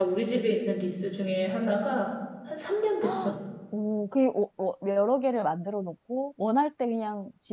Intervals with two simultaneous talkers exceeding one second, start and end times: none

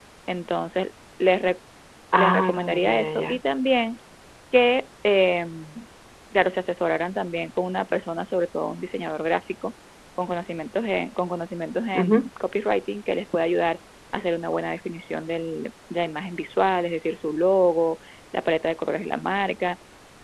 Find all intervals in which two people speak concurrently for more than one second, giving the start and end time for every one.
2.2-3.4

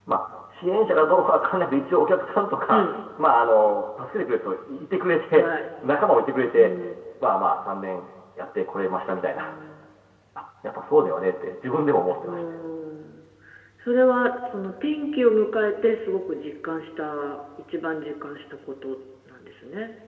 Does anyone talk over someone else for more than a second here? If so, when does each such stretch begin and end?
none

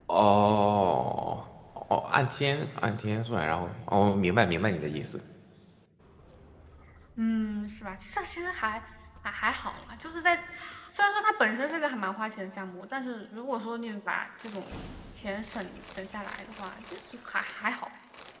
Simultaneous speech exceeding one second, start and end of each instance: none

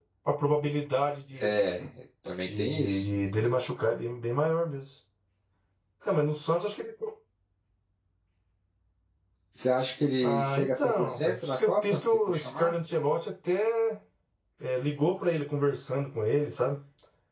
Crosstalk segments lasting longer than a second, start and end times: 10.2-12.7

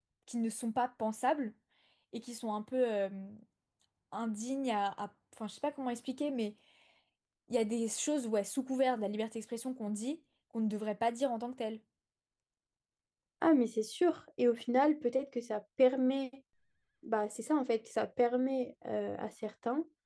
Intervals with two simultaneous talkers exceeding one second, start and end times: none

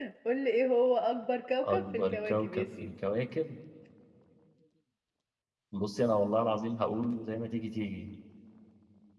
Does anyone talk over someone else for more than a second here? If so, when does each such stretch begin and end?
1.6-2.9

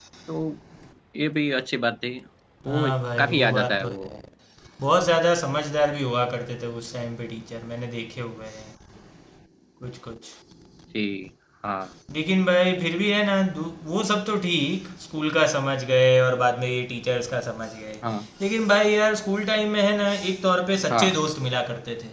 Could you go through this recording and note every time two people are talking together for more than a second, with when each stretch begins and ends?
2.7-4.1

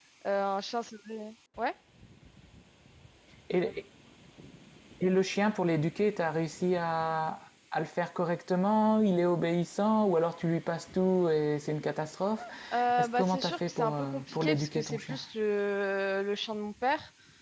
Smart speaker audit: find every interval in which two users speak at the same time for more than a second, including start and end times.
13.0-15.2

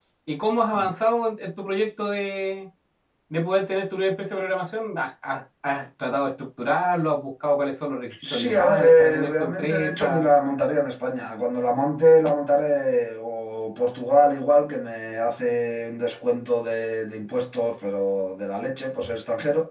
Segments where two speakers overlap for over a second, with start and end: 8.2-10.3

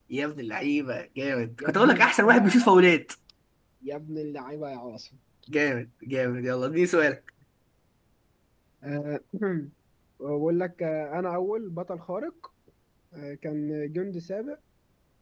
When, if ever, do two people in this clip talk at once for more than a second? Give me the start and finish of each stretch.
1.6-2.9

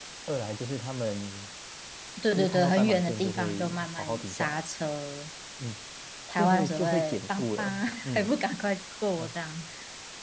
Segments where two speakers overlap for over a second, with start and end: 2.3-4.6, 6.4-8.3

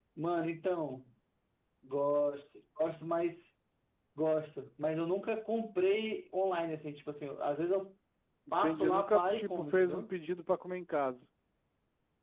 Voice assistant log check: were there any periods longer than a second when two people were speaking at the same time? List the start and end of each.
8.6-10.1

